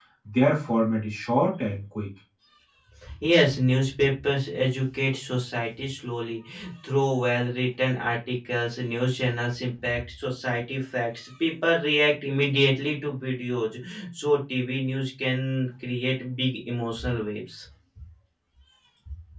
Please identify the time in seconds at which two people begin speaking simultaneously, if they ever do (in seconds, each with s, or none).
none